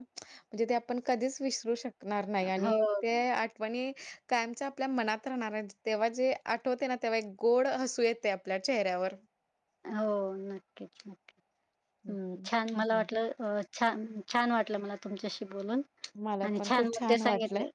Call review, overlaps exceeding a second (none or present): present